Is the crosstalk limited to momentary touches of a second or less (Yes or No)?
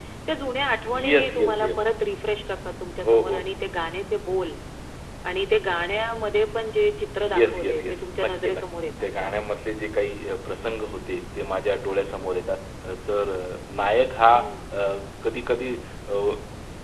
No